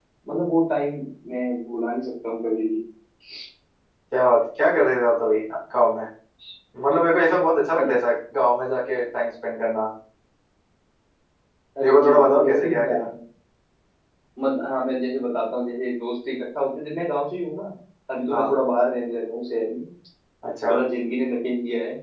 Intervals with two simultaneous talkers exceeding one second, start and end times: 11.8-13.0

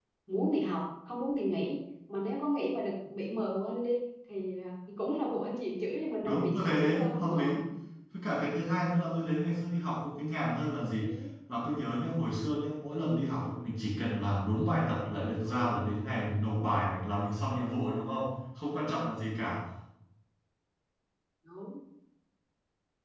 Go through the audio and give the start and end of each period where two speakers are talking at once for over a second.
6.2-7.5

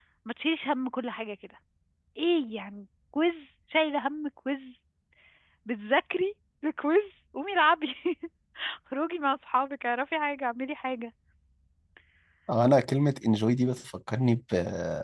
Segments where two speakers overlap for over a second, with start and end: none

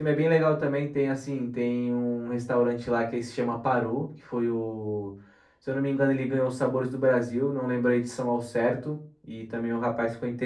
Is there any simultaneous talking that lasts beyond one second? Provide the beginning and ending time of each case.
none

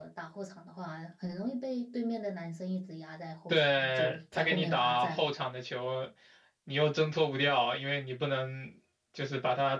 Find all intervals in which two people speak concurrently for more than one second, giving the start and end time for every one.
3.5-5.3

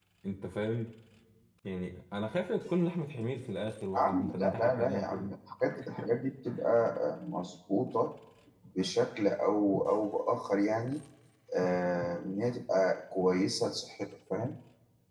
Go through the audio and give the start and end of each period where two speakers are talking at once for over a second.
4.0-5.3

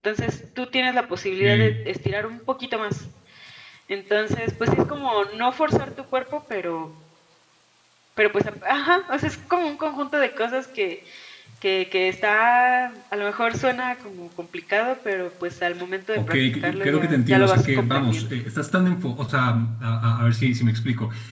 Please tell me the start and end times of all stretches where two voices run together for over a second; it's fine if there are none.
16.2-18.2

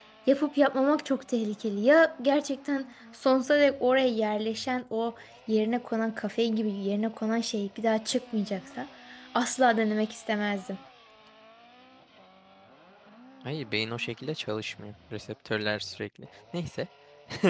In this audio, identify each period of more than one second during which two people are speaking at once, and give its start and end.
none

